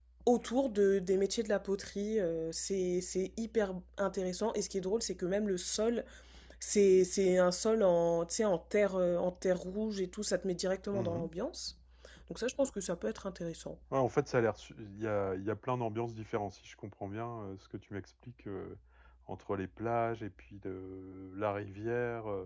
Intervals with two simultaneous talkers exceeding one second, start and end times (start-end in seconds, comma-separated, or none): none